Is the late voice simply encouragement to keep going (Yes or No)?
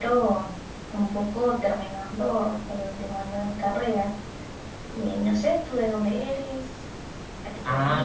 No